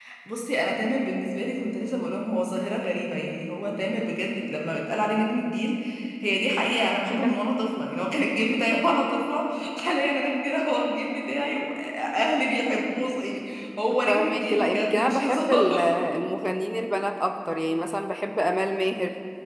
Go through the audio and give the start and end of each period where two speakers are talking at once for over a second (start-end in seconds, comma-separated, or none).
14.1-15.8